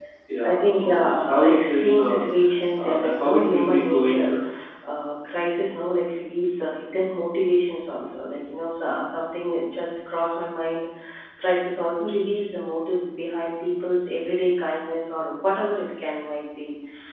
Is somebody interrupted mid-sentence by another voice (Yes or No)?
Yes